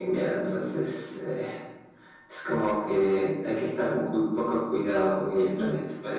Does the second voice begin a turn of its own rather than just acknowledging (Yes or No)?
No